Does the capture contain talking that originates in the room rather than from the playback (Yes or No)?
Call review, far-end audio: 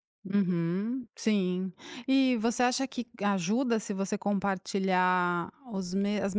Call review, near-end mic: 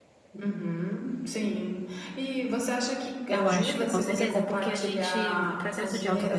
Yes